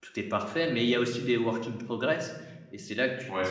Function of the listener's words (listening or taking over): listening